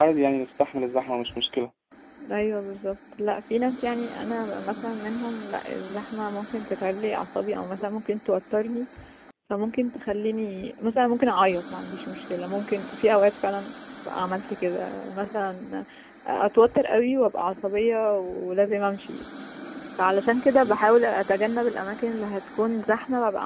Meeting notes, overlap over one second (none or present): none